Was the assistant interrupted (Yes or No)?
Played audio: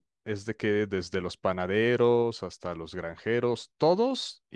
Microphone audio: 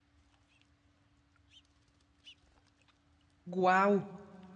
Yes